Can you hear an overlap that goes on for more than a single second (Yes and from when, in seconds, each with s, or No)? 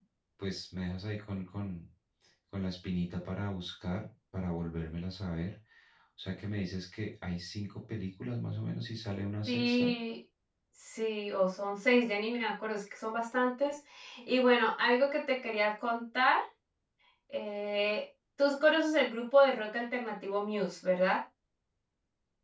No